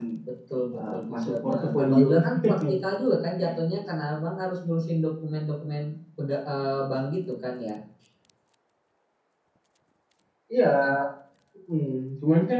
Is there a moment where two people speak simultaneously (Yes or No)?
Yes